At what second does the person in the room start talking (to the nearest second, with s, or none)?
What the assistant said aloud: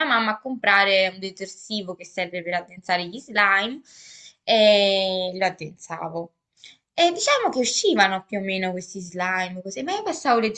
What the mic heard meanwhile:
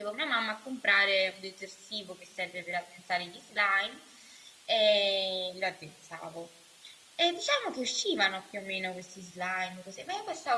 none